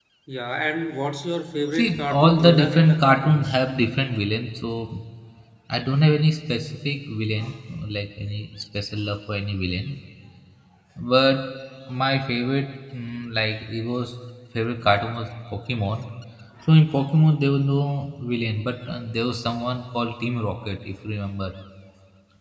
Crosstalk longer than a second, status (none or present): present